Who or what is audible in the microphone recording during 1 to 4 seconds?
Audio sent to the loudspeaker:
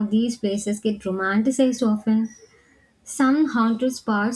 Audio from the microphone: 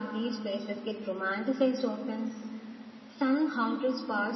echo only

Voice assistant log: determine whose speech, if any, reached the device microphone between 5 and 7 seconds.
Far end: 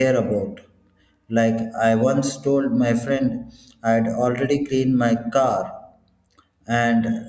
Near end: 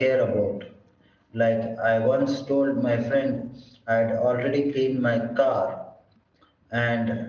echo only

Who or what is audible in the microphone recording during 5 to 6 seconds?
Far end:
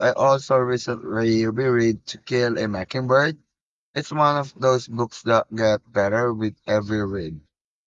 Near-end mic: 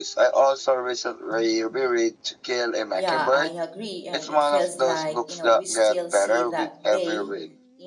both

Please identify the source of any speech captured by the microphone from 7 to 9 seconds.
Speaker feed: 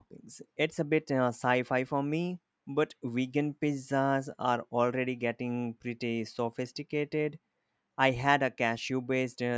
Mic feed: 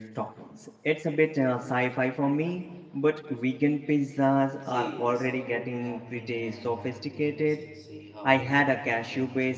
both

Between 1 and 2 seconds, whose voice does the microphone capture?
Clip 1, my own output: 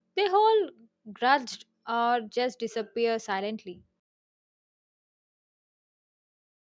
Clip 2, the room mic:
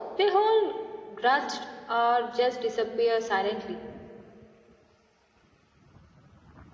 echo only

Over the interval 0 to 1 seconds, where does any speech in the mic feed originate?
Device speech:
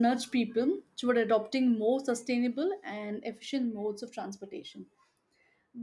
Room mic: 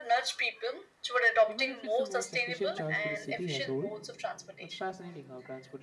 echo only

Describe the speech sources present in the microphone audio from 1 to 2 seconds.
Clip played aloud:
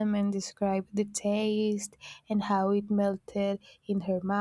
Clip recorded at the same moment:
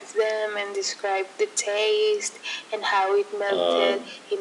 echo only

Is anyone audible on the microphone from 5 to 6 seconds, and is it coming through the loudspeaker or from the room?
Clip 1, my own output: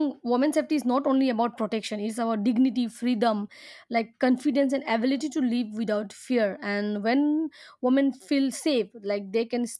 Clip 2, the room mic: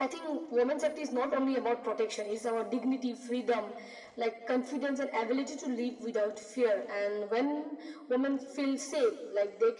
echo only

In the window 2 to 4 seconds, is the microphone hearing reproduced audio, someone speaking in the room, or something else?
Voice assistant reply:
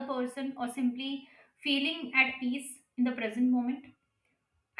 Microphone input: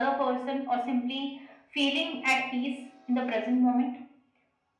echo only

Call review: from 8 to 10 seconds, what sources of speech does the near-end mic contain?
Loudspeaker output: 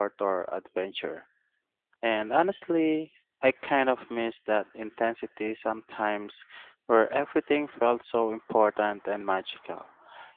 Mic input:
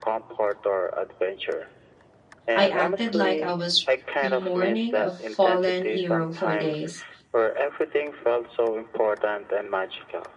echo only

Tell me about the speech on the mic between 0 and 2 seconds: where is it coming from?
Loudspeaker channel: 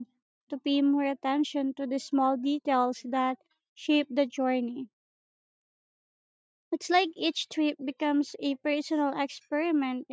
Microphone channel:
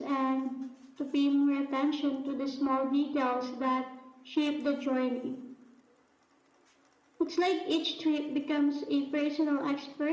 echo only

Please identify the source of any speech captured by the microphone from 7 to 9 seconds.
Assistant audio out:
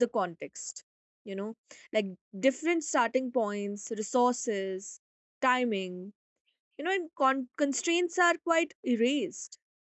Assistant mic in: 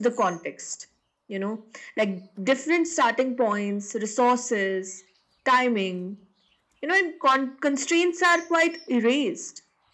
echo only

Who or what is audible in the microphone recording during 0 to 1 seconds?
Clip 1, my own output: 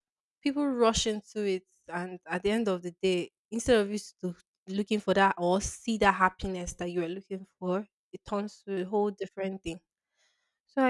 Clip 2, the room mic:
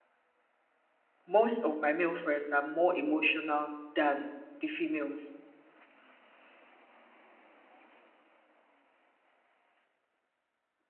neither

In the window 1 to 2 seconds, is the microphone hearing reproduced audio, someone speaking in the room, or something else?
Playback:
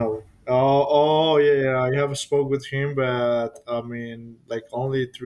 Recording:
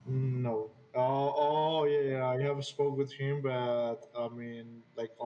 echo only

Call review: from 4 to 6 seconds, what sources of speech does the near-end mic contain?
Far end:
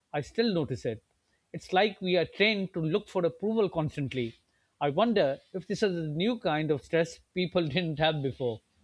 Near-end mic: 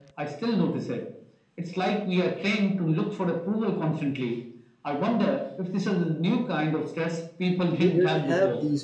echo only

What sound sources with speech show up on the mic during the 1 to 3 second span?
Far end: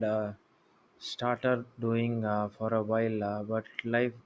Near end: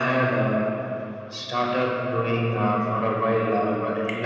echo only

